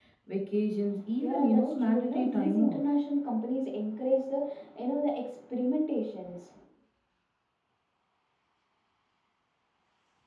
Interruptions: present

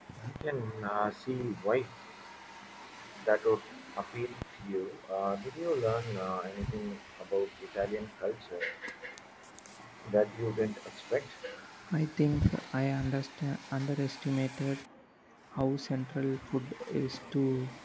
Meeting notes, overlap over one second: none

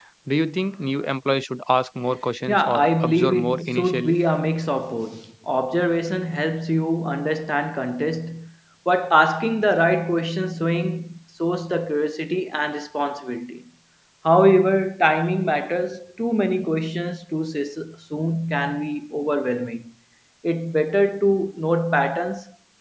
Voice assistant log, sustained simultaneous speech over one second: present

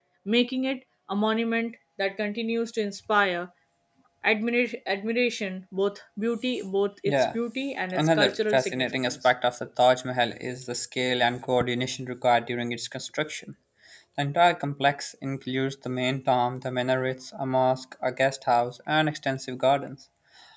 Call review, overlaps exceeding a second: present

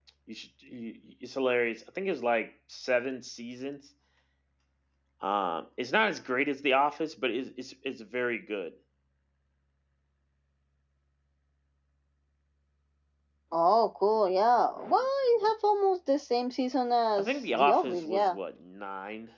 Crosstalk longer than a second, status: present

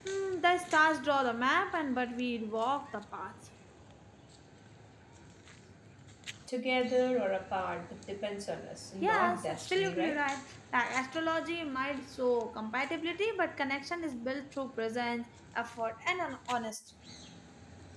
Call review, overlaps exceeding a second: present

